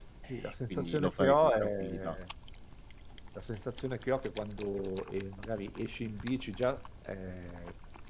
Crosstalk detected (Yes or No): Yes